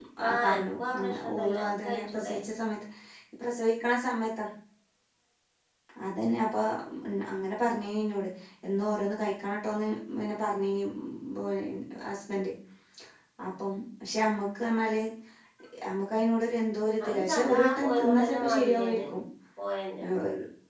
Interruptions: present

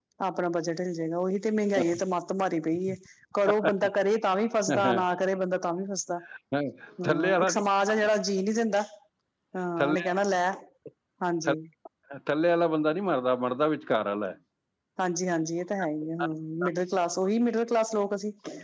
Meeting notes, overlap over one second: none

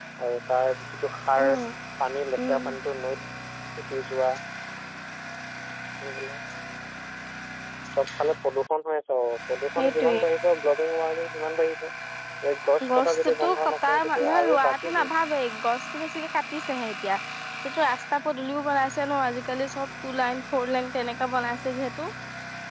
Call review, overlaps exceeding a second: present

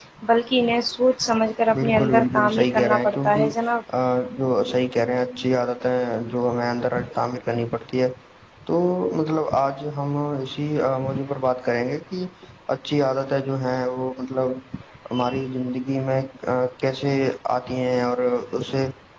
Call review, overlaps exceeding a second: present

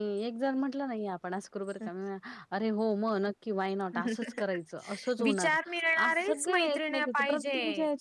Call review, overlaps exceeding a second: present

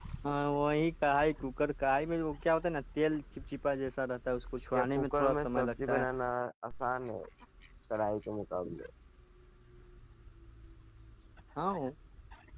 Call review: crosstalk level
present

